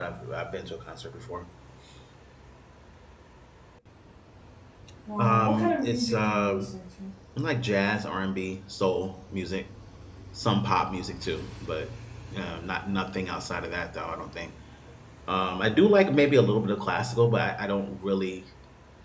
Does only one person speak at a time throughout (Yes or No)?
No